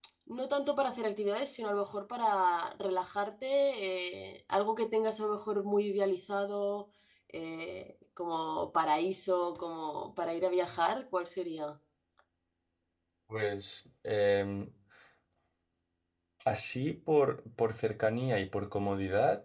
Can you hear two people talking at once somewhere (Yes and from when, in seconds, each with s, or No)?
No